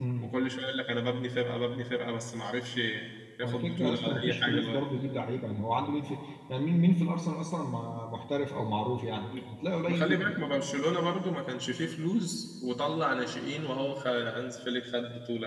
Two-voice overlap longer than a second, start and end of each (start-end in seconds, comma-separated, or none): 3.4-4.9